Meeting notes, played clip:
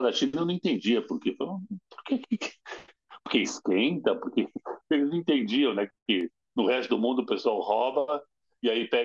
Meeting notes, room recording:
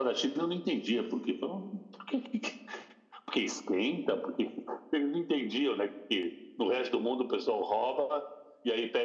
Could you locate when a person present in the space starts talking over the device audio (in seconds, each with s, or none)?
none